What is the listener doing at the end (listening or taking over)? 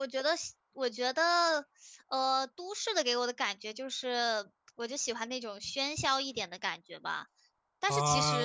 taking over